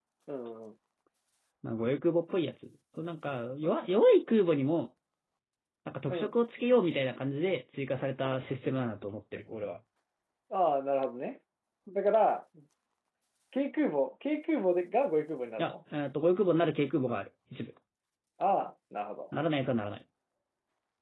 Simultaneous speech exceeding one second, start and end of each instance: none

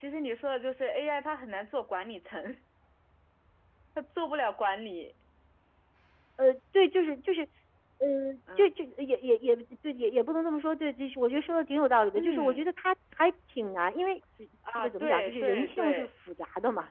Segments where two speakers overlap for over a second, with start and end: 14.8-16.1

